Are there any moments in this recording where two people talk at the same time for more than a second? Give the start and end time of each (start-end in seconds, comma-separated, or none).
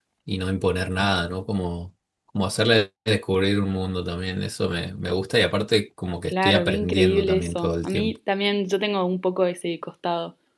6.3-8.1